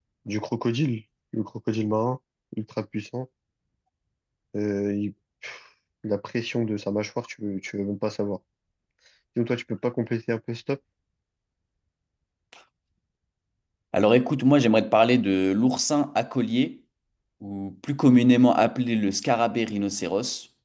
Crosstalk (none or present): none